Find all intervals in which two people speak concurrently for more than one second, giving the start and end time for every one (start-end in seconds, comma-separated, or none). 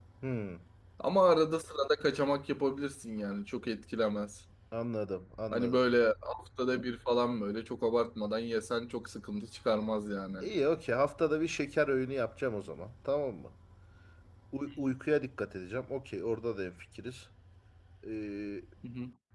none